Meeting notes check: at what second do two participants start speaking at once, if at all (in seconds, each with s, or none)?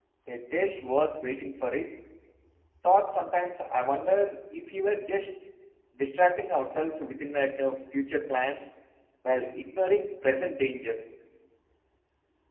none